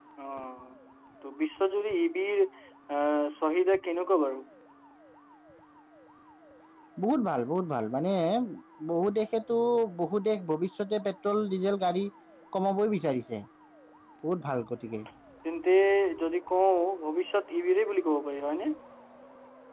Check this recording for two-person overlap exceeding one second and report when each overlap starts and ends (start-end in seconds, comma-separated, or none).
none